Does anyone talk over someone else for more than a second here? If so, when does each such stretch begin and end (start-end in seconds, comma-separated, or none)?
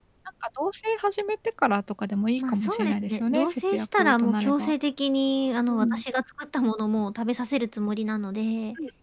2.4-4.7